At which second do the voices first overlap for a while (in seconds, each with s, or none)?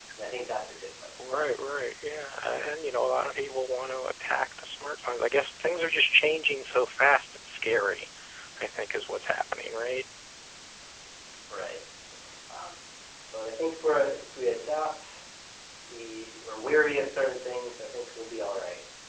none